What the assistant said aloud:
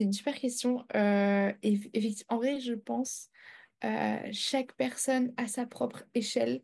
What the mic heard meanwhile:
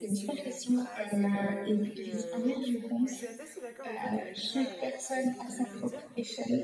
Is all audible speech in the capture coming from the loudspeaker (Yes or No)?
No